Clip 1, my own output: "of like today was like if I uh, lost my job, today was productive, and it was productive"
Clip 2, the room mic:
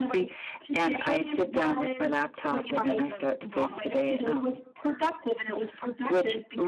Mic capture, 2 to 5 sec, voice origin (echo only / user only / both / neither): both